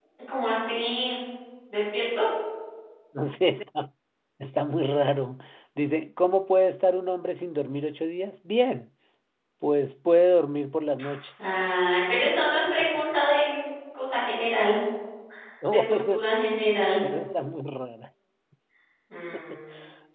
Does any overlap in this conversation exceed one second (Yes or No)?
No